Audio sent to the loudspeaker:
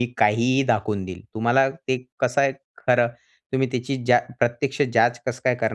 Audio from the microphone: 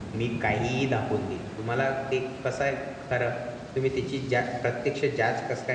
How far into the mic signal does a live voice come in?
none

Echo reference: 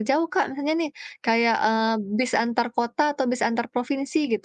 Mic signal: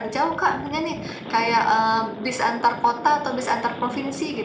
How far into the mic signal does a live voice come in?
none

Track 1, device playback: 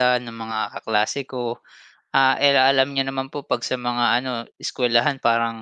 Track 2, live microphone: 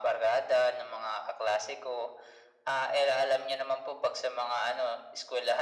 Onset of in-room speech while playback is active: none

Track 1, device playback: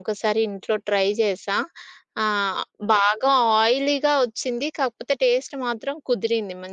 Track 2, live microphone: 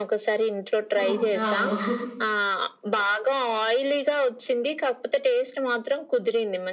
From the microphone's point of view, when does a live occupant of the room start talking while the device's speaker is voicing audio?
0.9 s

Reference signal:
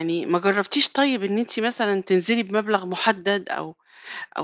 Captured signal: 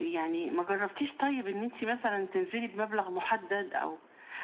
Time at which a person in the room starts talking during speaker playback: none

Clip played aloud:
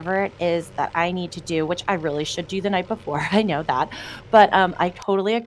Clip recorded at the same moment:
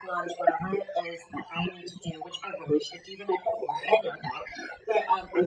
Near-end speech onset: none

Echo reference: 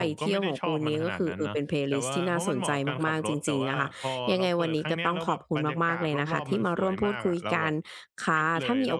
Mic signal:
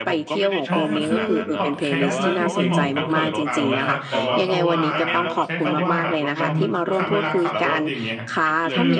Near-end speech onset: 0.7 s

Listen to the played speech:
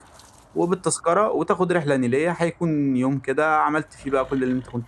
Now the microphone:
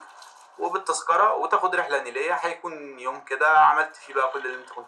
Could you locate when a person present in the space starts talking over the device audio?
none

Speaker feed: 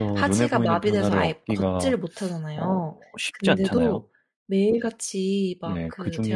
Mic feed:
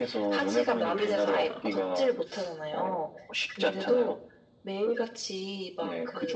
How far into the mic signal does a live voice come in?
0.7 s

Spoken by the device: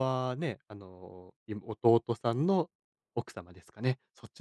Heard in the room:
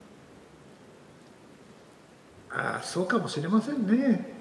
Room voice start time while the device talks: 2.5 s

